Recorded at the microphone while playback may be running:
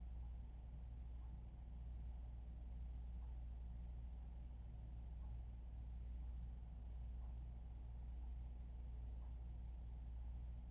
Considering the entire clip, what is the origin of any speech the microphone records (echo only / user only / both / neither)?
neither